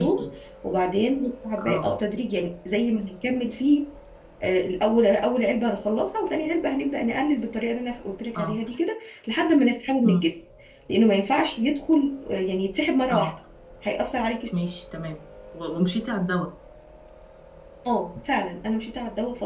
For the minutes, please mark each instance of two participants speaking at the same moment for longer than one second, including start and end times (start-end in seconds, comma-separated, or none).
none